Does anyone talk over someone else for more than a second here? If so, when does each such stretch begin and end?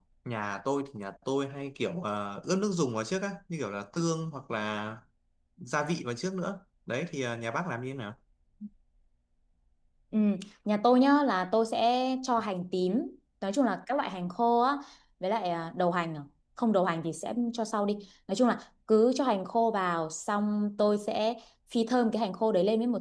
none

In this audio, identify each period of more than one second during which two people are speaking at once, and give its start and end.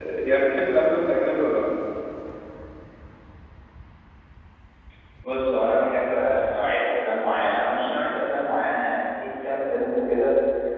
none

